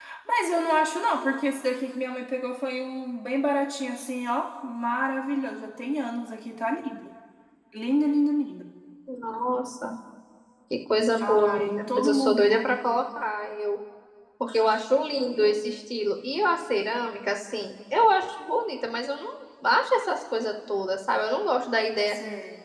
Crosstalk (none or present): present